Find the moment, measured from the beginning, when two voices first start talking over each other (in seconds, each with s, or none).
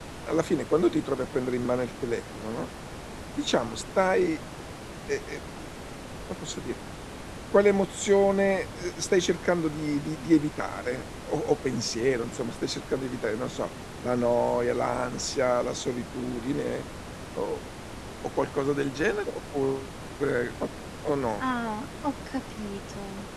none